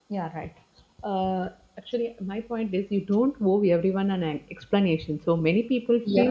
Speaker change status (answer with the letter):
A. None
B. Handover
A